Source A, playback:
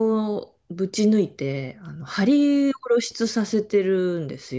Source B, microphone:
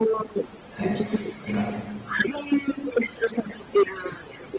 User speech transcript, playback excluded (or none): はい。なんか、